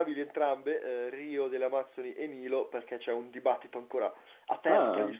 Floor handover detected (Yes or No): No